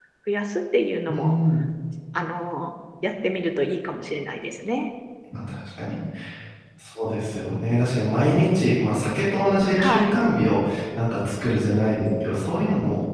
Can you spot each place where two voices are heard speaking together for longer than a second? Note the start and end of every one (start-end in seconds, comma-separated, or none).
none